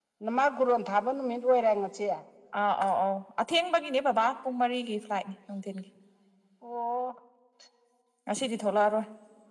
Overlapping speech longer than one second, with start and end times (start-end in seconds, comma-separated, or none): none